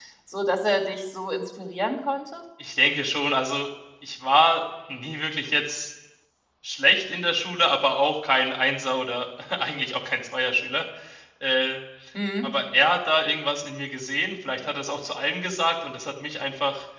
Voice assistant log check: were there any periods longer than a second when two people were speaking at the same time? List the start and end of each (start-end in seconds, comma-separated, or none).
none